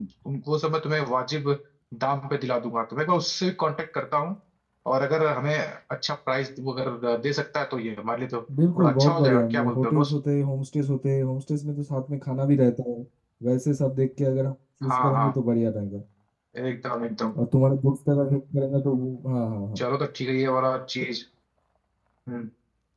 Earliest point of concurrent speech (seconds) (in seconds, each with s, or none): 8.8 s